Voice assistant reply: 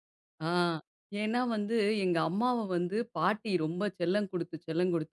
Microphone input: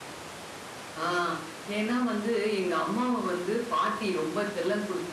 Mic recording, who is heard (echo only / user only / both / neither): echo only